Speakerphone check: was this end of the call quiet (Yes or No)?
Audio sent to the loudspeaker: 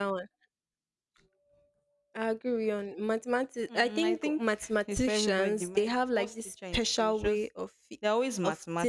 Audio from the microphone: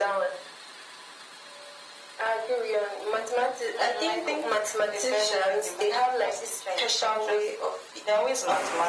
Yes